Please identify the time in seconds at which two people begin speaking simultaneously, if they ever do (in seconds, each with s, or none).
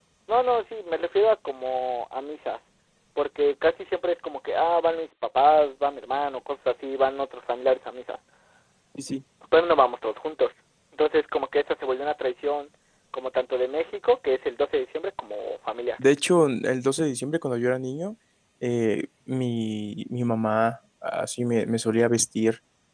none